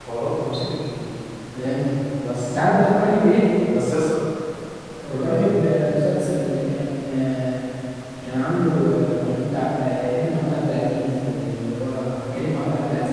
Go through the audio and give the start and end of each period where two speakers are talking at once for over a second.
none

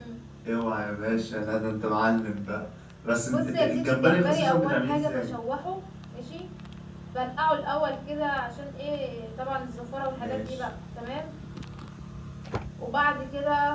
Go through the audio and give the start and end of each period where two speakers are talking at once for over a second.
3.3-5.4

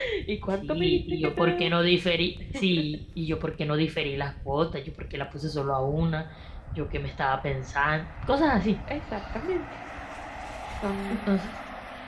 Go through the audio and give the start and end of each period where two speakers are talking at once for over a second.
0.5-1.7

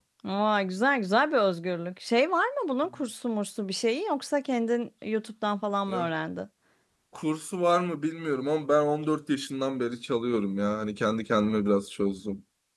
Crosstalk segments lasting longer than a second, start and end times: none

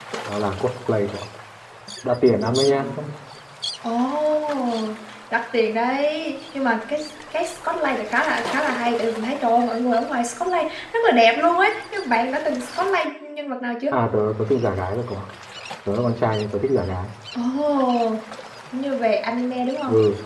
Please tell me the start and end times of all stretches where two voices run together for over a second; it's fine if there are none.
none

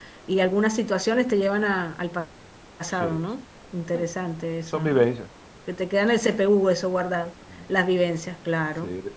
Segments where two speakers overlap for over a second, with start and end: none

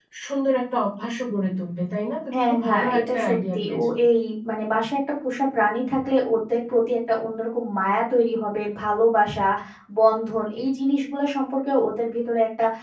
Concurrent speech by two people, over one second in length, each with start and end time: 2.3-3.8

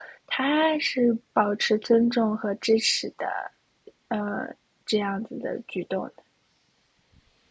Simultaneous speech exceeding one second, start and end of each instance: none

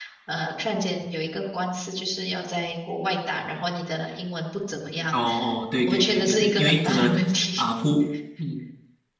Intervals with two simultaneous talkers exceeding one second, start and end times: 5.9-7.1

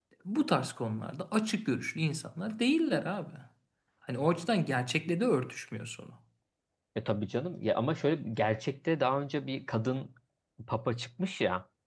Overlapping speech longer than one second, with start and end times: none

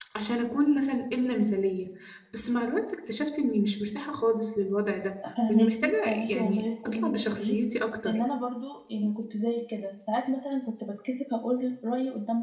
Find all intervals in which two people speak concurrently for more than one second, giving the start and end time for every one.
5.5-7.6

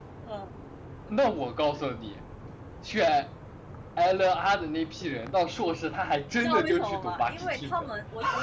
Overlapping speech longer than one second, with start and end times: 6.4-7.9

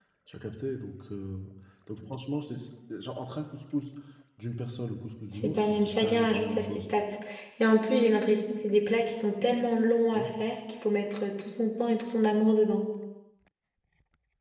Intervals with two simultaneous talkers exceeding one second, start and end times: 5.3-6.8

